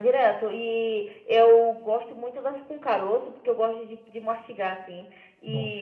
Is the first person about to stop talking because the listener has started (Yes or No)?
No